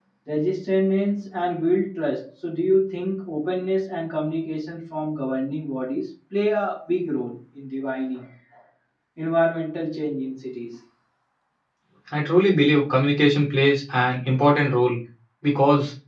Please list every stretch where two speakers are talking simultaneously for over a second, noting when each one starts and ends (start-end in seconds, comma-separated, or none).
none